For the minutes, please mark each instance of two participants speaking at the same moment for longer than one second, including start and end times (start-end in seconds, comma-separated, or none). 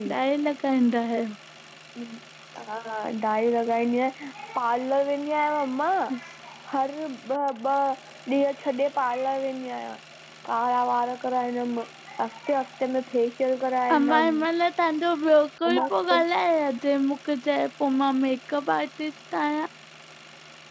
none